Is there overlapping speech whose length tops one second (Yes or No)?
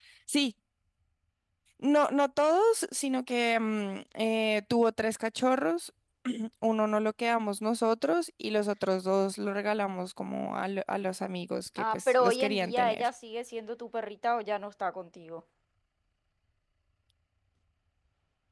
Yes